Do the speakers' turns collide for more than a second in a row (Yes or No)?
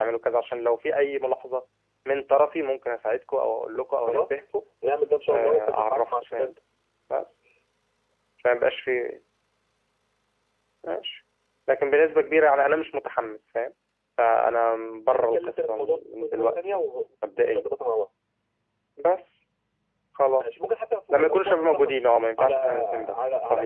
Yes